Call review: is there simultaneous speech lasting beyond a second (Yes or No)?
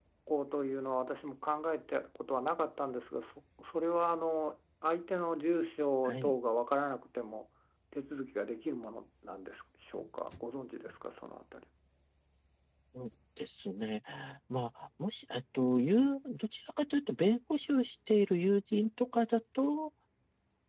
No